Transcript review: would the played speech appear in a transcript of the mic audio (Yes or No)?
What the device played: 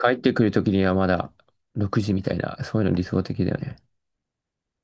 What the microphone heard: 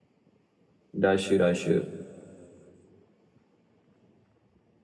No